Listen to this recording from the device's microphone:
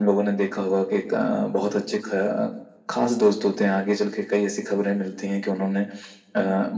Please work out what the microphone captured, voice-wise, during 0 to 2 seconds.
echo only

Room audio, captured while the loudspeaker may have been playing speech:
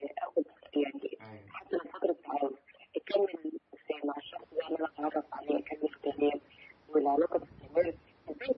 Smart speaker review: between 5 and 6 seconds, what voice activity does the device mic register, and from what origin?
echo only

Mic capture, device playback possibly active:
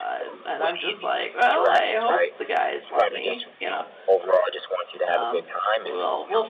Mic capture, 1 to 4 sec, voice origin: both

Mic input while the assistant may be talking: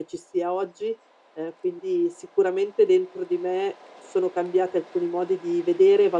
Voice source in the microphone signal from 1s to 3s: user only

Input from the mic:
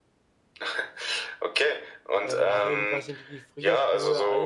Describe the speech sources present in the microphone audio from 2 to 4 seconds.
both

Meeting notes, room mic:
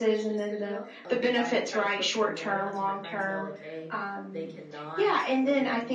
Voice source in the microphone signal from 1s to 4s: both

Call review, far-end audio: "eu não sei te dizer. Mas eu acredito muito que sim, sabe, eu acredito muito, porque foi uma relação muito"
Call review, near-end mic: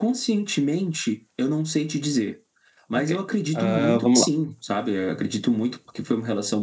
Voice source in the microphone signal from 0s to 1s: echo only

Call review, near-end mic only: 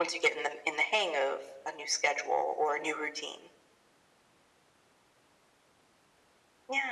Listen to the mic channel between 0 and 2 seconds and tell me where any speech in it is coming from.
echo only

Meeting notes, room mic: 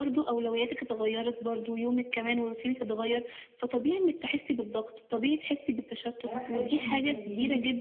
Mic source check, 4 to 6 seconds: echo only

